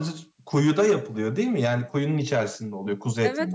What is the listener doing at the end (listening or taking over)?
taking over